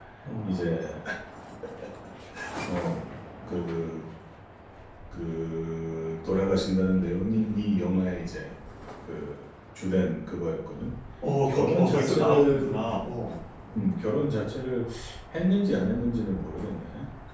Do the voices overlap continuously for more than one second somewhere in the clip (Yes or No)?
Yes